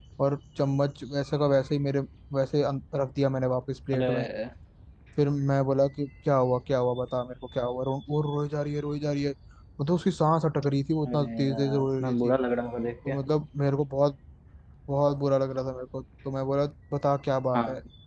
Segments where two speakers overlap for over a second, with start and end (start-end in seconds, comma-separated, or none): 11.1-12.3